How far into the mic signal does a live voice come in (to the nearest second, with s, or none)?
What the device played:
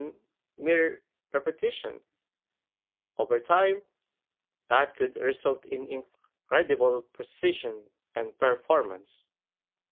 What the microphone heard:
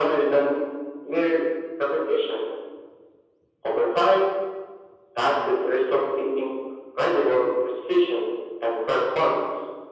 none